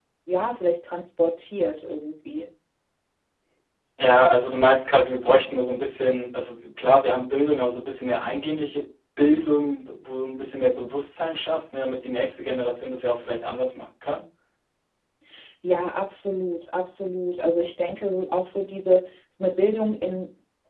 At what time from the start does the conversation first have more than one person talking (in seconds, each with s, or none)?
none